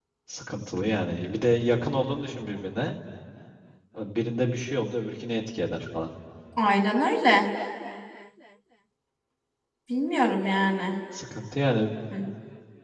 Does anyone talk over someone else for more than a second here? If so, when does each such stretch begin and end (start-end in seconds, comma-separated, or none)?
none